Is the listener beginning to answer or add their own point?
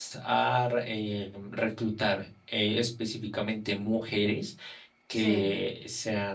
No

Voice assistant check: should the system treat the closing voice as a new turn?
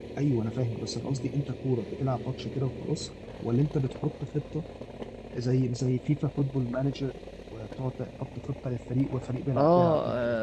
Yes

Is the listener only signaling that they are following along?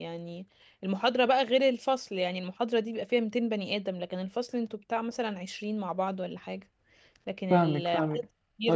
No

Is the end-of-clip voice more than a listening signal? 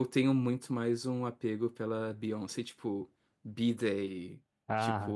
No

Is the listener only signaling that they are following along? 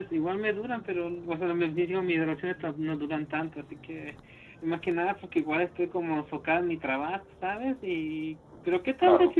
Yes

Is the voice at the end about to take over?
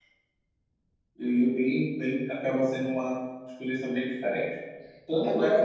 No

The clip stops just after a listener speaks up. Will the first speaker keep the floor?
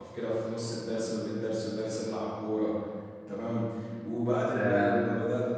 Yes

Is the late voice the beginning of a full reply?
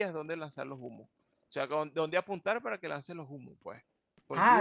Yes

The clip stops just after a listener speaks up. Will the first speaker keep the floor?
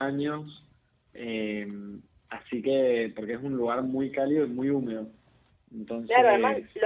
No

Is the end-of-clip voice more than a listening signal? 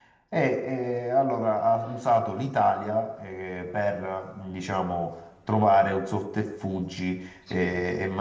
No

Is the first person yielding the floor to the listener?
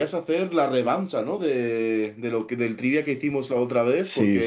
Yes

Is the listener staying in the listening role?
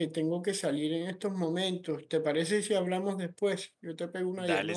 No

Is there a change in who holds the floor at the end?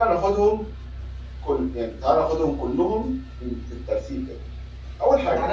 Yes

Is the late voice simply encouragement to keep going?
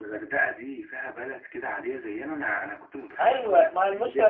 No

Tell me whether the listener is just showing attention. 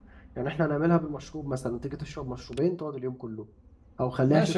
No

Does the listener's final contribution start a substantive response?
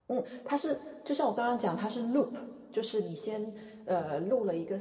No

